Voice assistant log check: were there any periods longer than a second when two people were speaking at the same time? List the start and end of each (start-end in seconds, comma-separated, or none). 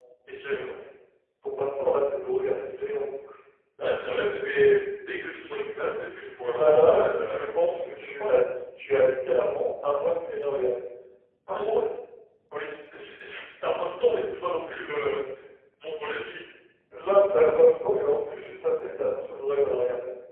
6.4-8.4